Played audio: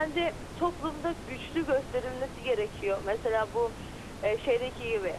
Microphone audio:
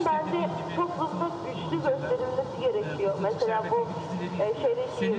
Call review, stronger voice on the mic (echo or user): echo